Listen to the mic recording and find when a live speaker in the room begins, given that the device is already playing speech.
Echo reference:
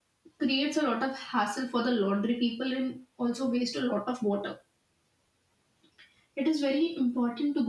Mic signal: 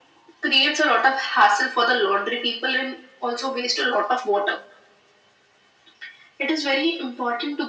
none

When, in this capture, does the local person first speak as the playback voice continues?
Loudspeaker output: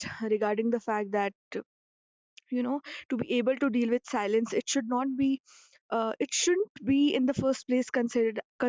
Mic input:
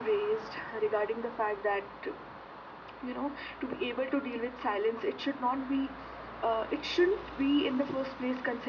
none

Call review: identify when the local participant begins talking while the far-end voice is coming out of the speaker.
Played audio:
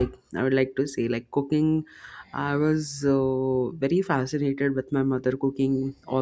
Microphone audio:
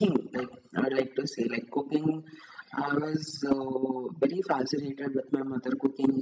none

